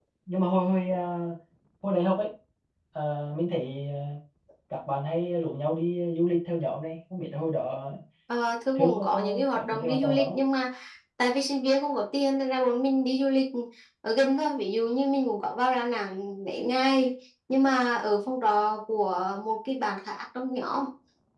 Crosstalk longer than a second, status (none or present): present